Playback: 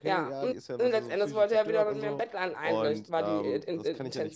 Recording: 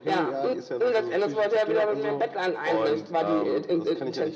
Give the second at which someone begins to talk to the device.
none

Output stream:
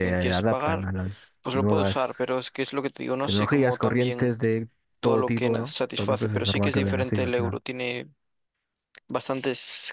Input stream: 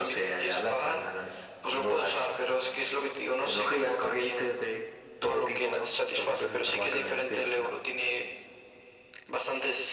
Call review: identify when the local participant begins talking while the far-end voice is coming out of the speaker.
none

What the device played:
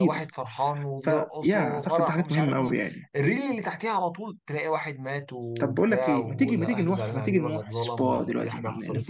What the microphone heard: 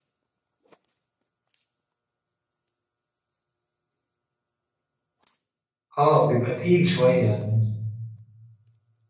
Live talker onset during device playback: 6.0 s

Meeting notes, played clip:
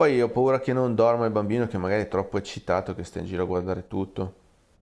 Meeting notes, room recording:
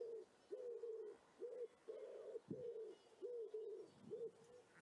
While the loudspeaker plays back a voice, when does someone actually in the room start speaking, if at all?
none

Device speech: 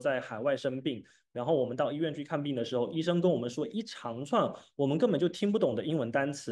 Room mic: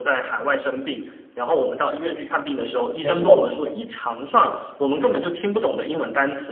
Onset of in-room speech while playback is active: 3.0 s

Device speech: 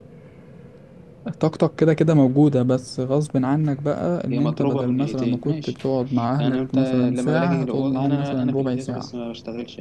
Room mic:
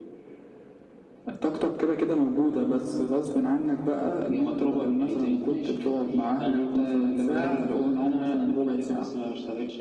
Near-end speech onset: 7.4 s

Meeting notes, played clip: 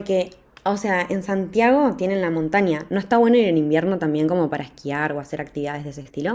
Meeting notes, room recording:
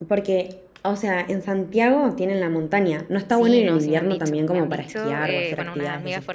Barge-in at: 3.3 s

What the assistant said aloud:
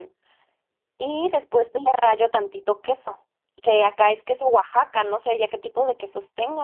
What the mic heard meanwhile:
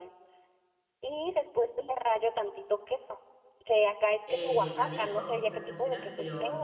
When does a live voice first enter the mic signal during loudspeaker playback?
4.2 s

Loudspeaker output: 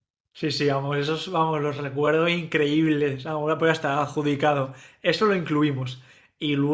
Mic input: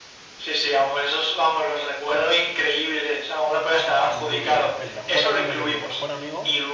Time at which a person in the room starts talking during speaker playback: 4.1 s

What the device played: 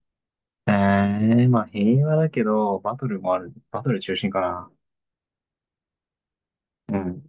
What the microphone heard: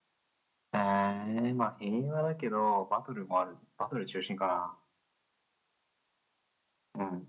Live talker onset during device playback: none

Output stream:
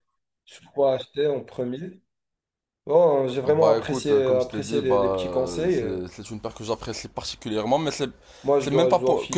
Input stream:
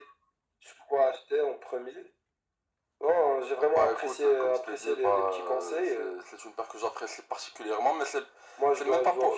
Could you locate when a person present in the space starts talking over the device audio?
none

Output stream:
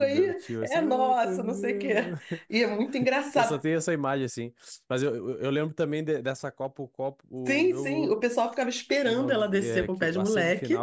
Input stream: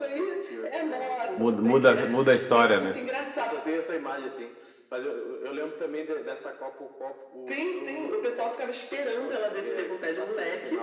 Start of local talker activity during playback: 1.3 s

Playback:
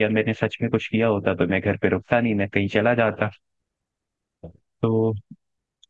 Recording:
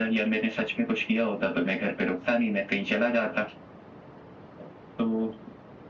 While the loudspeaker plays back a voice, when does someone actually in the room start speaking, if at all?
none

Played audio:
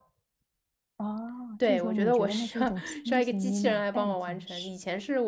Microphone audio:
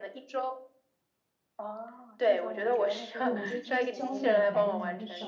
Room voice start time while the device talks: 3.2 s

